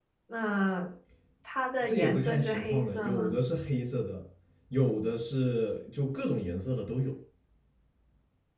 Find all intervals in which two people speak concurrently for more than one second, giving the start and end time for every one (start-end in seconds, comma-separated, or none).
1.8-3.3